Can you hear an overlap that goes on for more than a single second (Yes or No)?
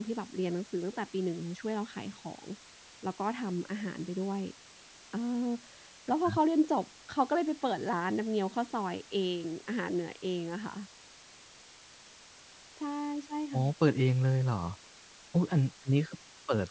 No